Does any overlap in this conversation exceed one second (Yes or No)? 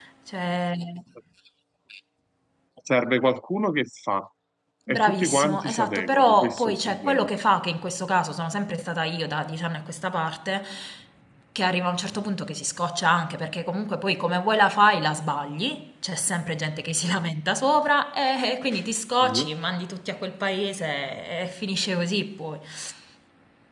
Yes